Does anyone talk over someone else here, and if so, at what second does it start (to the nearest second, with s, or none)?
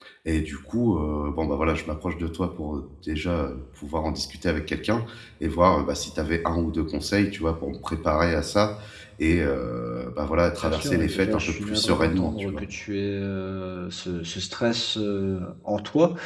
11 s